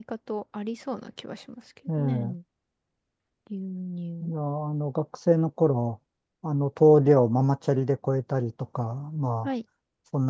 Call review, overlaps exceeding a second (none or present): none